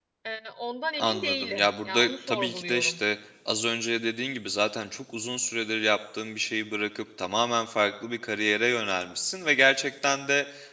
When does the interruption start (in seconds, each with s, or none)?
1.0 s